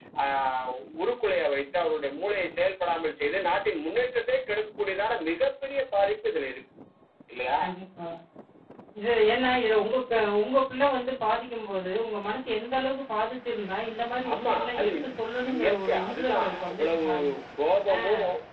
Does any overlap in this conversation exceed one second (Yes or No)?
Yes